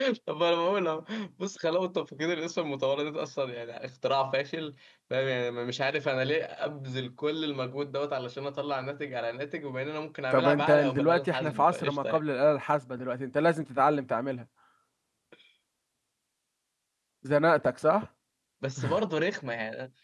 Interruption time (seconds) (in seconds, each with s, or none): 10.3 s